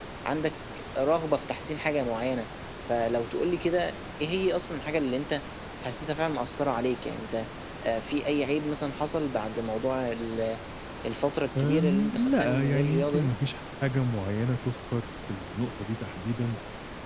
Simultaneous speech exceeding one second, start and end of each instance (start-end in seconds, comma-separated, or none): 11.6-13.3